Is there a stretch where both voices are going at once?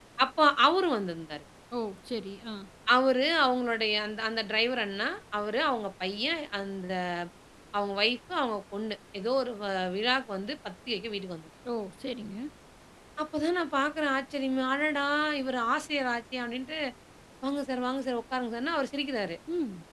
No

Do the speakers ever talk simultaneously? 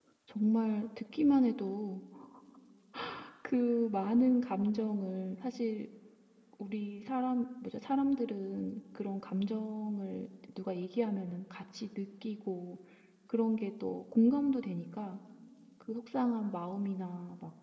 No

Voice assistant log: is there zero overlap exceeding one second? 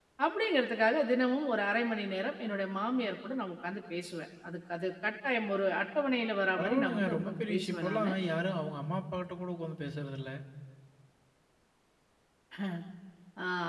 No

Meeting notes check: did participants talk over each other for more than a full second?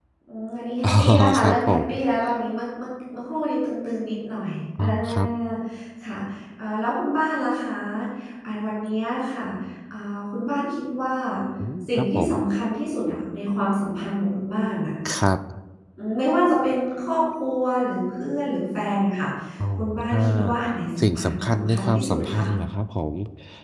Yes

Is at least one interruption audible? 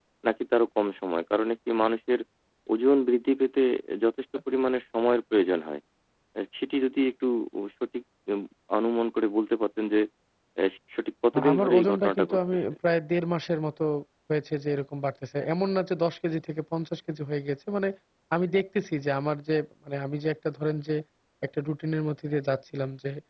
Yes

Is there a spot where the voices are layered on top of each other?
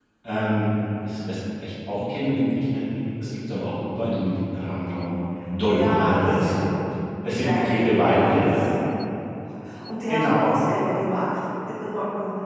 Yes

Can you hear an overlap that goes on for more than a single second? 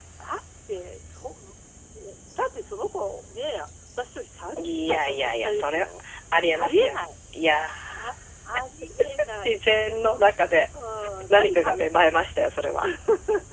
Yes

